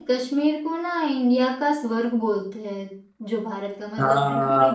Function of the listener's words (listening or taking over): listening